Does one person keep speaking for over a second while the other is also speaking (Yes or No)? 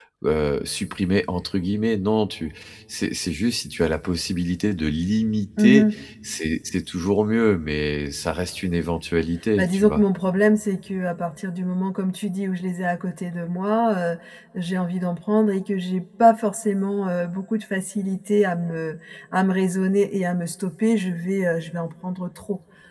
No